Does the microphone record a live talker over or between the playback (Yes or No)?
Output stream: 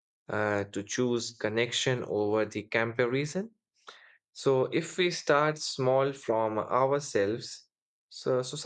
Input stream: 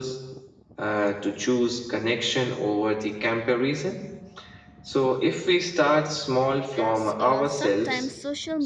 Yes